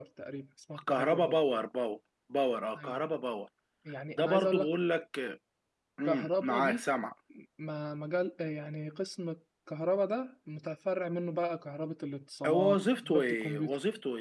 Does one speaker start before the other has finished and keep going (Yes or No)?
Yes